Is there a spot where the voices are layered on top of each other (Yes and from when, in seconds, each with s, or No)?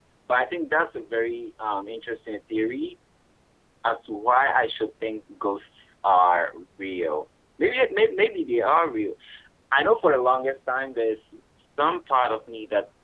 No